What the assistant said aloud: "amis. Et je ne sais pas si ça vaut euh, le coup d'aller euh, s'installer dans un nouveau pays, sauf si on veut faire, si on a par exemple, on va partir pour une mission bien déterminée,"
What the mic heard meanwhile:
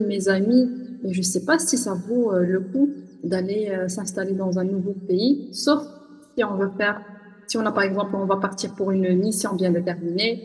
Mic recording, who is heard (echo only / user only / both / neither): echo only